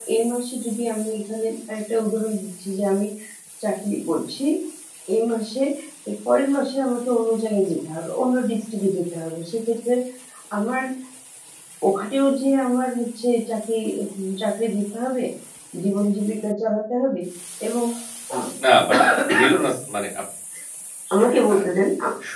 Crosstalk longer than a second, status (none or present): none